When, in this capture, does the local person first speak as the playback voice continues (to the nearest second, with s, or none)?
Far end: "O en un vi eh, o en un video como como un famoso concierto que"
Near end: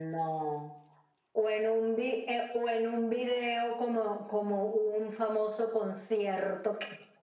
none